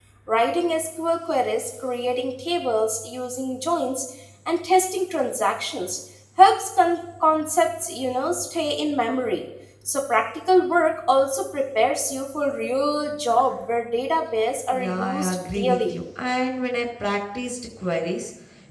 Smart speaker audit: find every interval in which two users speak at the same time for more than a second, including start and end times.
14.7-15.9

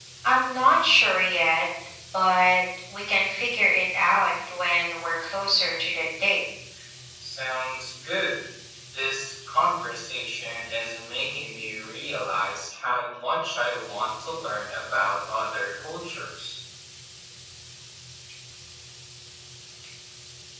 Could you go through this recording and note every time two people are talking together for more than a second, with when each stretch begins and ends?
none

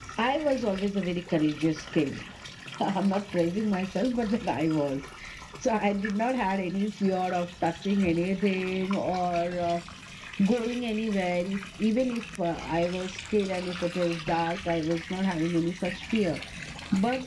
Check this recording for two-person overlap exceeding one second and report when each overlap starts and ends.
none

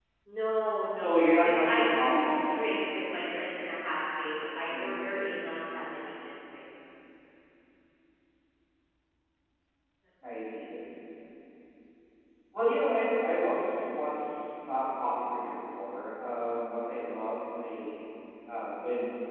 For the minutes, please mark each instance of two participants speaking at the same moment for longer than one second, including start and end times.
0.9-2.4

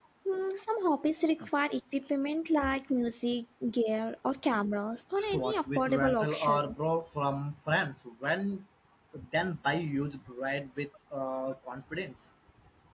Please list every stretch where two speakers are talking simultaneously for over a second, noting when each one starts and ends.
5.2-6.8

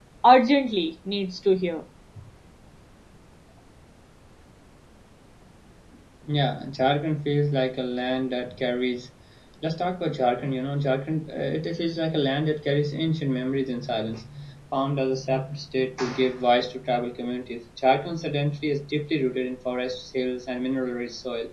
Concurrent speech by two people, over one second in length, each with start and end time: none

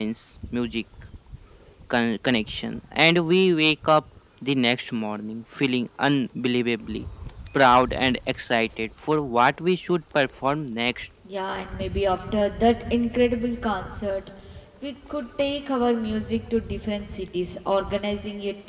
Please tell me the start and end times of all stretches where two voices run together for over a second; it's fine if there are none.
none

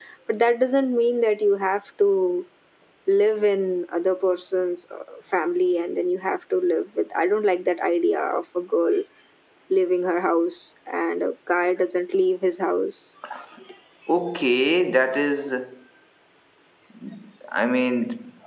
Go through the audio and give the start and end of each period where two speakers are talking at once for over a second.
none

